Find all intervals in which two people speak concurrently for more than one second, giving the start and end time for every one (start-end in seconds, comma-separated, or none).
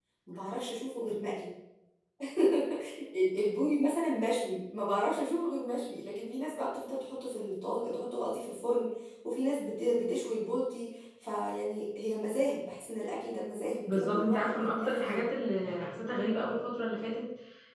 13.9-15.2